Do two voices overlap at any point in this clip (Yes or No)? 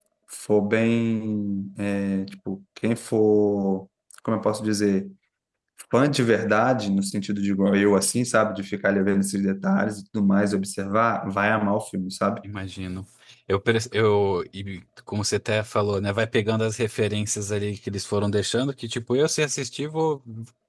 No